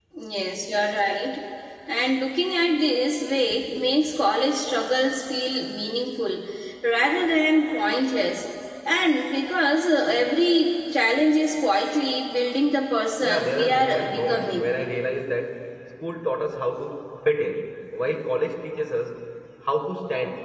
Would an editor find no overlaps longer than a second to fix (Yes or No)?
No